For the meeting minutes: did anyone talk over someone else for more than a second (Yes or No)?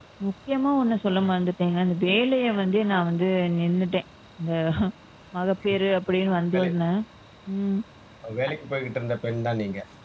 No